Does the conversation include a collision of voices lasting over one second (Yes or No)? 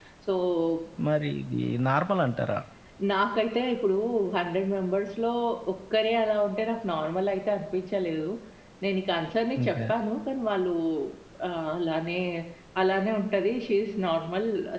No